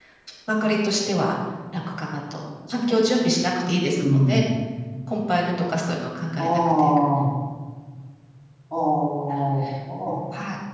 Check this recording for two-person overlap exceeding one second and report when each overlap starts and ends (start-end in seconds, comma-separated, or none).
none